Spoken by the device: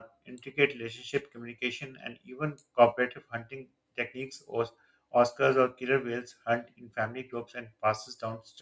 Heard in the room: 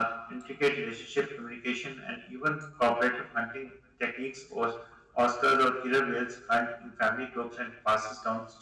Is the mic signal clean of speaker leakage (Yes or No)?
No